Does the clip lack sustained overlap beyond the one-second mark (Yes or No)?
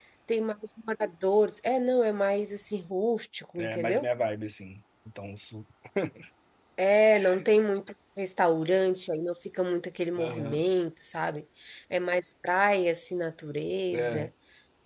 Yes